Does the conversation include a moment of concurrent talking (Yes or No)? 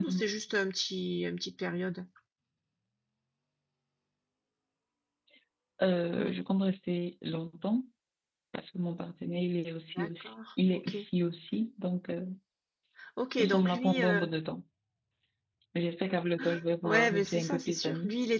Yes